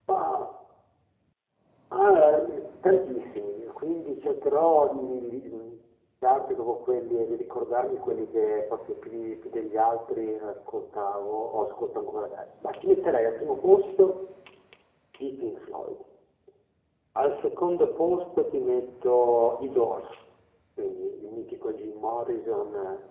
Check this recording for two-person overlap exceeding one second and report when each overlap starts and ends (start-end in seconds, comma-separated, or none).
none